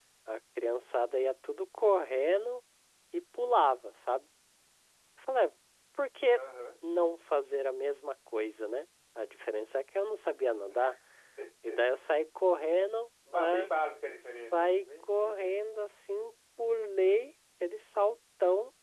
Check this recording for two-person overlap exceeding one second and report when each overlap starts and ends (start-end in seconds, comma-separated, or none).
14.2-15.6